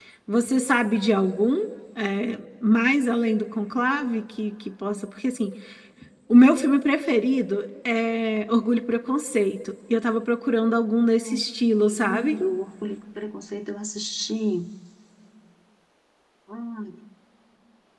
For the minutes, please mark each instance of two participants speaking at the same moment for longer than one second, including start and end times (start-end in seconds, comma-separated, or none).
11.0-12.4